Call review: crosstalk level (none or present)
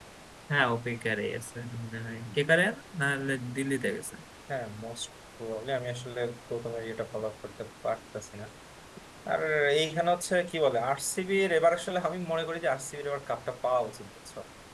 none